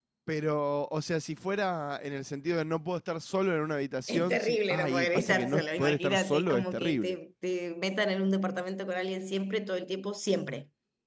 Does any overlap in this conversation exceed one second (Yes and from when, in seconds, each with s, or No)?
Yes, from 4.1 s